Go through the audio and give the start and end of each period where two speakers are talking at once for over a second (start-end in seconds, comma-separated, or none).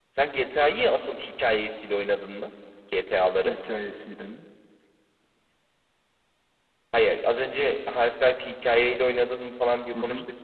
none